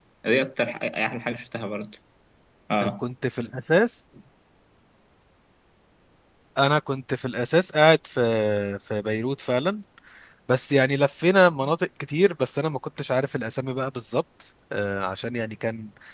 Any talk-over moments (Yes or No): No